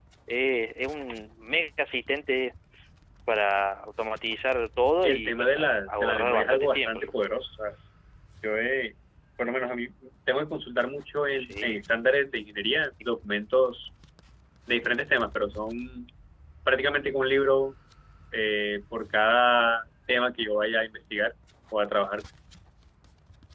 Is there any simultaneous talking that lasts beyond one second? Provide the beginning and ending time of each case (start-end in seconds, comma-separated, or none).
5.0-7.1